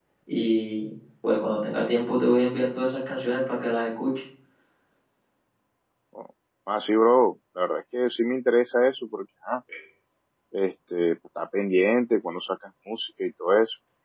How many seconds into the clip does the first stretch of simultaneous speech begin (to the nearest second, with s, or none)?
none